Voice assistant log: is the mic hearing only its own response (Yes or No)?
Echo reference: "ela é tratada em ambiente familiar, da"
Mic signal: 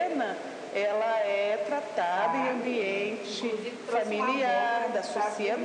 No